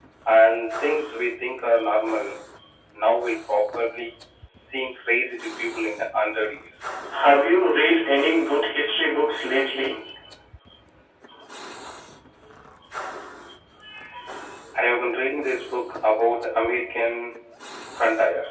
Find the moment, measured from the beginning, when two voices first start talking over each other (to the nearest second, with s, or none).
none